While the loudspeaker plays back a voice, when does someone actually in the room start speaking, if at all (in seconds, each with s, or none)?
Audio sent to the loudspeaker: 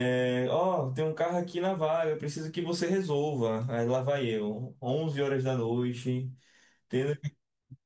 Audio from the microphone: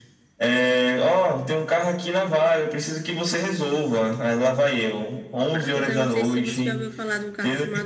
5.5 s